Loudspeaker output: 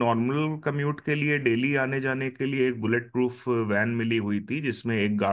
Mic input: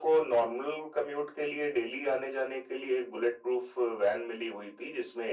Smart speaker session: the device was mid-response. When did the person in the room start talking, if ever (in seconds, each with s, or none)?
none